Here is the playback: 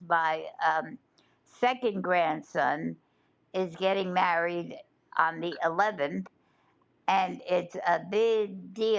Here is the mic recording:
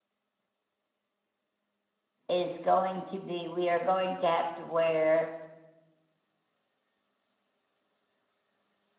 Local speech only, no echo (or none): is going to be, we are going to have to wear